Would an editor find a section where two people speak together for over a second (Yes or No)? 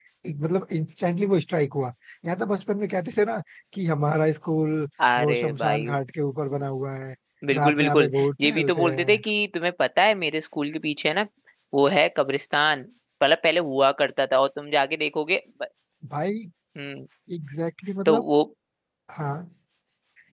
Yes